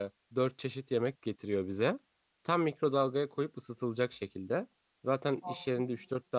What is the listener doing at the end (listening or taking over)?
listening